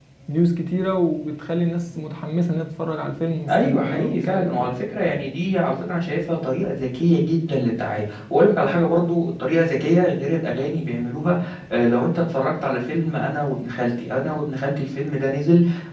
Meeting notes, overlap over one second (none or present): present